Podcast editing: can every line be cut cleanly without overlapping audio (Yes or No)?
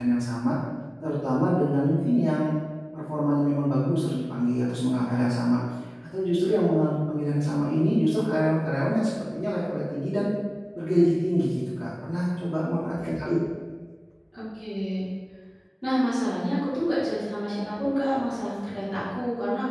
Yes